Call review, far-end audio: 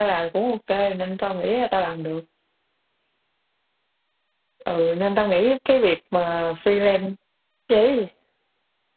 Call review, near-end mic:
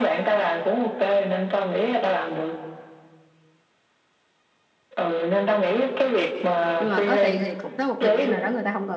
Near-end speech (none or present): present